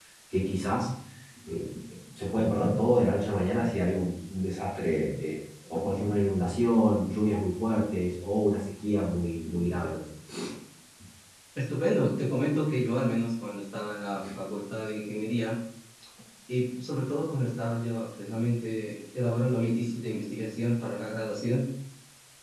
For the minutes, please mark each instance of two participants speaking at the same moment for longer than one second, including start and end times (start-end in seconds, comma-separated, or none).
none